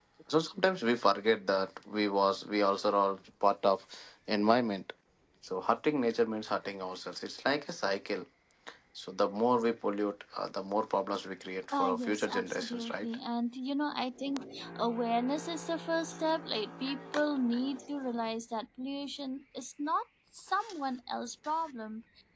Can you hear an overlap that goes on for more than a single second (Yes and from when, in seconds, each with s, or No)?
Yes, from 11.7 s